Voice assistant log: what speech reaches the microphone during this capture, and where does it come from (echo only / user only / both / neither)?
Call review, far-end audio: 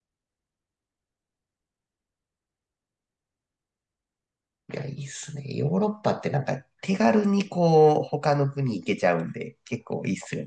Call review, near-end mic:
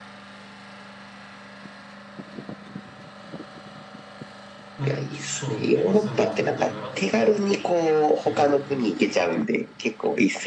both